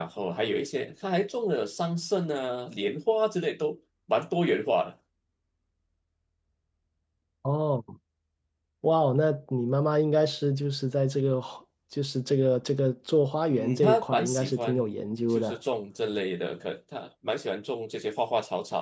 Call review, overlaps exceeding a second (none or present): present